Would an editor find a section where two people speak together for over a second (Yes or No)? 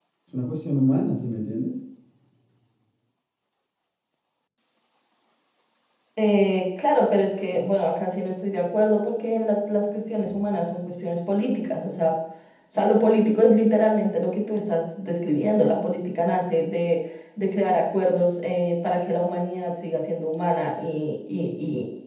No